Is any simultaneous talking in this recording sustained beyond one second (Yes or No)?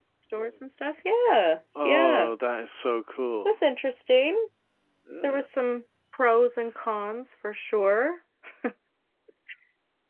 No